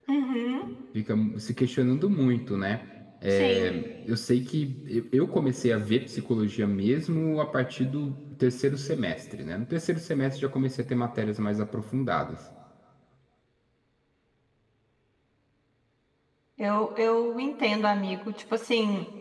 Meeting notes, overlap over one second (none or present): none